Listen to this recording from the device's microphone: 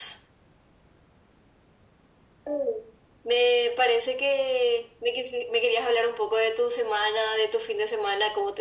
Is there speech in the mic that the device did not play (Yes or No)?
No